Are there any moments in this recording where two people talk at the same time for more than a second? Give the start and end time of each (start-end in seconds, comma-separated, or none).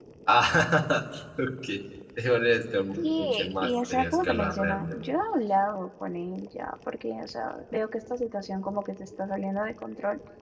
3.0-5.0